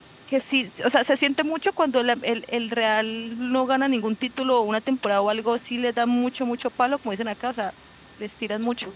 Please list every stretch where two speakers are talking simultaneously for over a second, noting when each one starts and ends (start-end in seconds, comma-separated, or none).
none